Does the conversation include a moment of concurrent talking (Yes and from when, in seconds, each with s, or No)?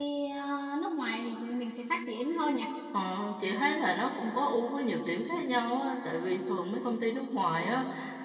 No